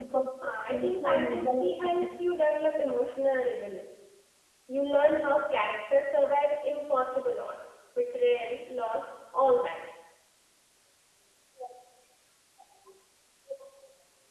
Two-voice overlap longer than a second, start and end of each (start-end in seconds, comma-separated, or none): 0.7-1.9